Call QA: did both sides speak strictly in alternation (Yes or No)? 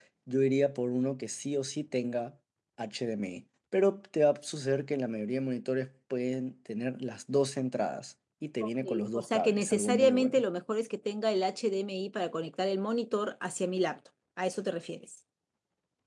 No